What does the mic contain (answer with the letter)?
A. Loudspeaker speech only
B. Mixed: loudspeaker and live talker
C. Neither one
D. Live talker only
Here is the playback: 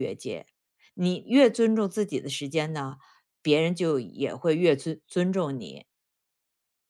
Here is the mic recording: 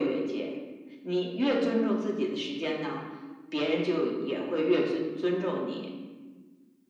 A